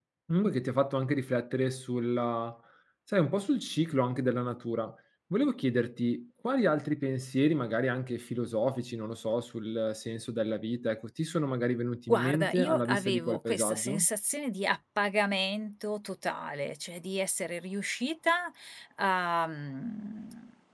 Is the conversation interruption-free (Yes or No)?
No